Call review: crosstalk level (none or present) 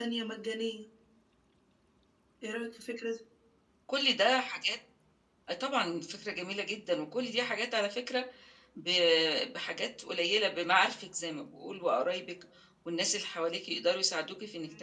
none